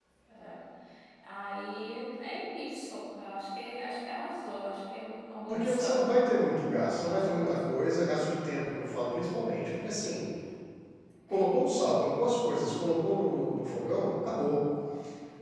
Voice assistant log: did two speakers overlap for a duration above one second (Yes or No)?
Yes